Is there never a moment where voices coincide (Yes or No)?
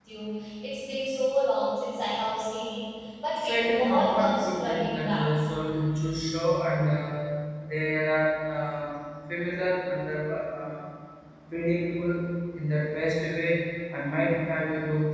No